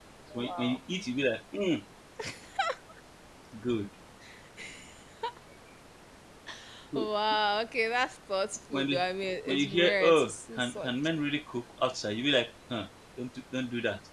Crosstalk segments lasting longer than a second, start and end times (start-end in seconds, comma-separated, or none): 9.4-10.9